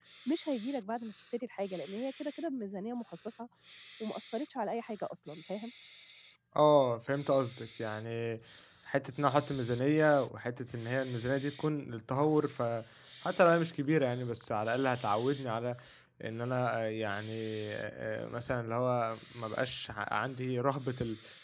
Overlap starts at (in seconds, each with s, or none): none